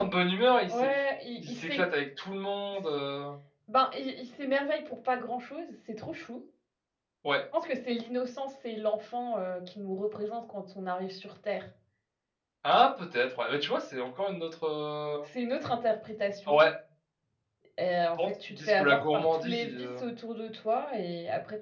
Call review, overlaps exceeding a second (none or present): present